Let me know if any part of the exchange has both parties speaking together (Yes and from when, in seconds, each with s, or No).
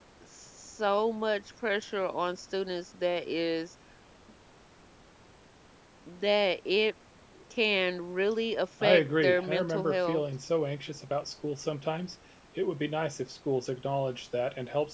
Yes, from 8.8 s